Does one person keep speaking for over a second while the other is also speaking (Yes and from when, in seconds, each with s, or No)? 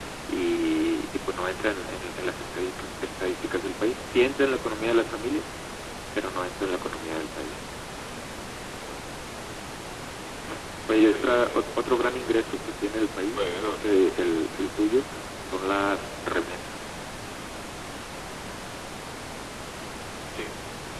Yes, from 11.1 s